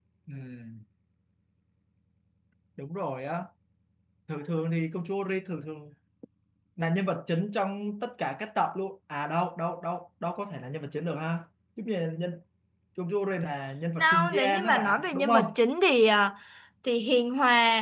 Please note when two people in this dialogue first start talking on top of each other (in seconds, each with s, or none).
14.0 s